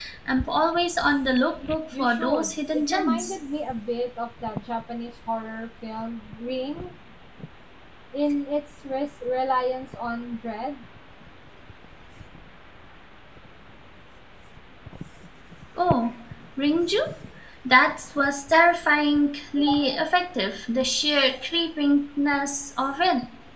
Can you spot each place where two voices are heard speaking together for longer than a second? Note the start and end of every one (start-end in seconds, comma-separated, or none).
2.0-3.3